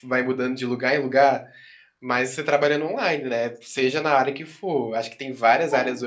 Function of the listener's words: listening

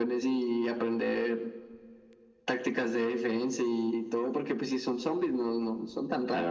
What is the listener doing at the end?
taking over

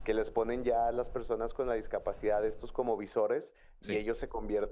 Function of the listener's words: listening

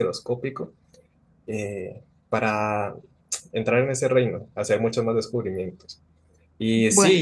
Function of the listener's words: listening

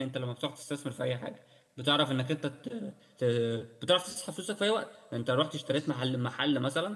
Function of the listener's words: listening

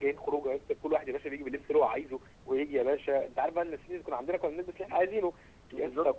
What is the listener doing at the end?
listening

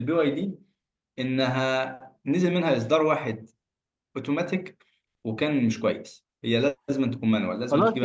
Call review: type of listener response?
taking over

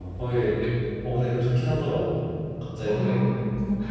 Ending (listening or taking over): taking over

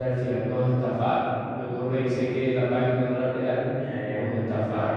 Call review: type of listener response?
taking over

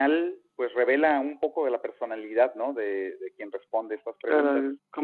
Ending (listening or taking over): taking over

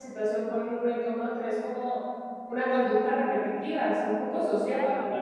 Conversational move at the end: taking over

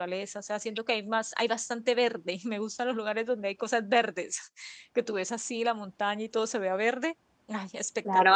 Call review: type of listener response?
taking over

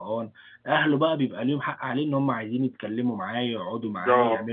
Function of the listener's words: taking over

